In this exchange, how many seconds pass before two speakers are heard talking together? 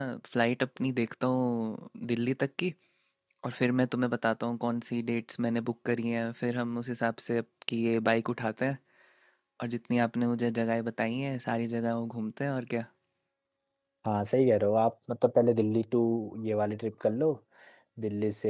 none

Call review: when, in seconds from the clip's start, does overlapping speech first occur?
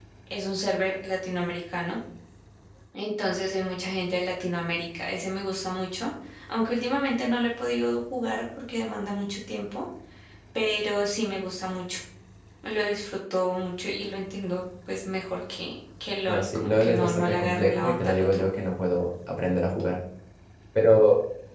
16.3 s

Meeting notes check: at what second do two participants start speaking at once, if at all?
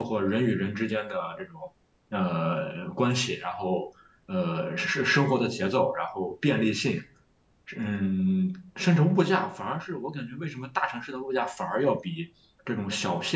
none

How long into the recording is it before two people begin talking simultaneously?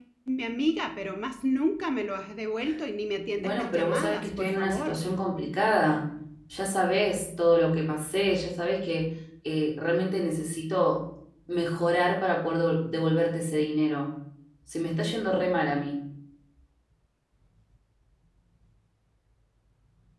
3.4 s

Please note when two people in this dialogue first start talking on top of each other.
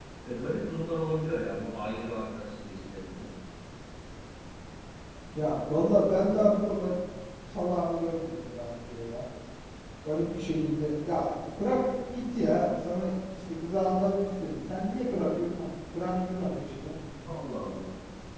none

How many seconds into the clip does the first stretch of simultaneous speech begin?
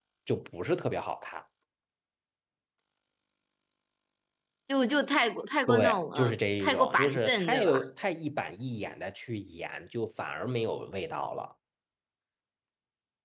5.7 s

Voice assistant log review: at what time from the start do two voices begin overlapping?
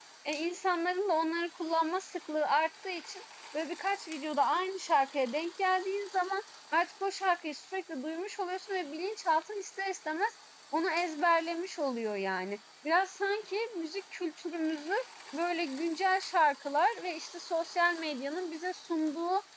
none

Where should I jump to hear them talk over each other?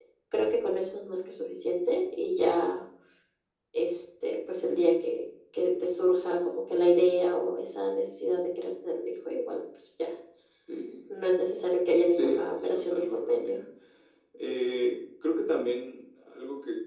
12.1 s

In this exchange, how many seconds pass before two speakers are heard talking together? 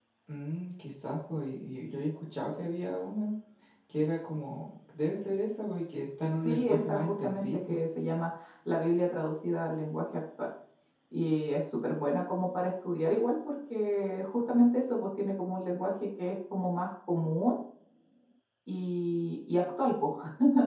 6.4 s

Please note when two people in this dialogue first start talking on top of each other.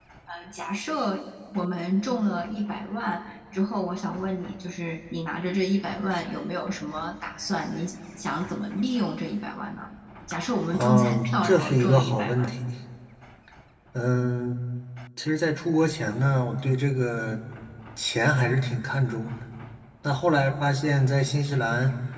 10.7 s

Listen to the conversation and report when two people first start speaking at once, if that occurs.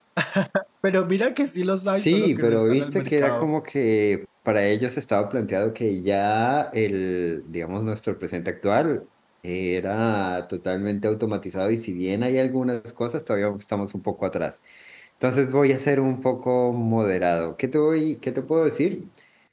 1.9 s

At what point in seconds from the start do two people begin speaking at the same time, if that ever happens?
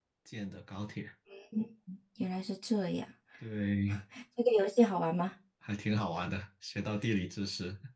none

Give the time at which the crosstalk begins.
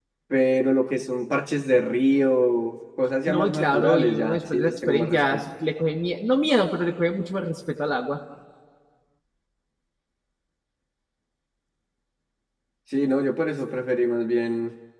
3.3 s

